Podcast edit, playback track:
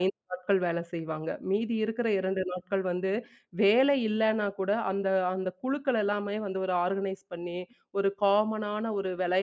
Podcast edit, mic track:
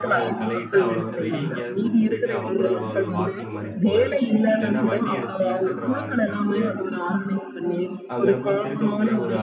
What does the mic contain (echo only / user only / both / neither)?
both